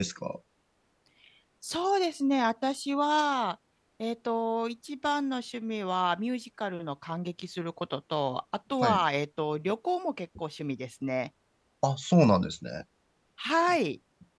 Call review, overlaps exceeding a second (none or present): none